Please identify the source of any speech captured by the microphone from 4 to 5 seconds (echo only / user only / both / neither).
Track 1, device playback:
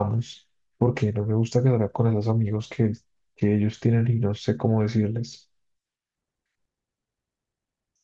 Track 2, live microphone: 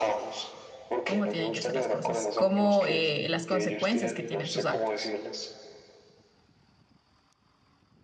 both